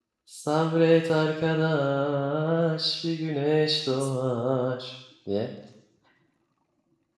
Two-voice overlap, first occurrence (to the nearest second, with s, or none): none